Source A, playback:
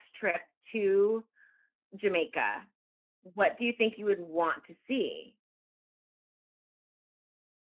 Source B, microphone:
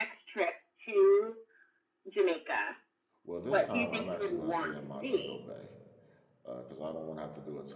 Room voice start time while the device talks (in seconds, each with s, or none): 3.2 s